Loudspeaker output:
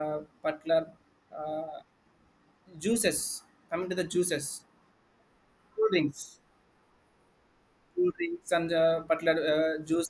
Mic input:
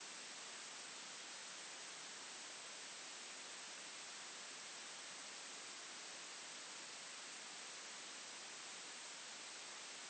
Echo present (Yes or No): No